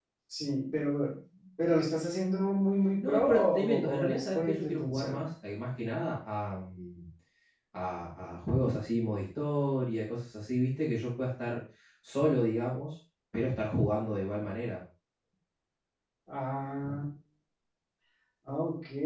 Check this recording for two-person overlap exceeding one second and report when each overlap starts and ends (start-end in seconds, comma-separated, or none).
3.0-5.2